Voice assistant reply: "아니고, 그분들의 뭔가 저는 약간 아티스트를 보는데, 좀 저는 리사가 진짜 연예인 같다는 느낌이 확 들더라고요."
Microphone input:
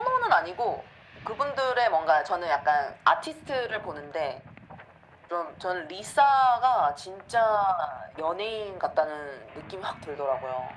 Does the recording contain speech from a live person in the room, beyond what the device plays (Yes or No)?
No